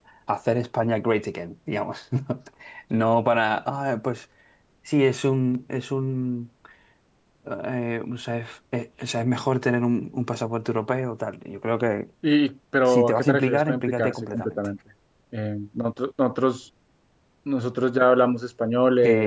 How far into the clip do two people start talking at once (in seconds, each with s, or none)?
12.8 s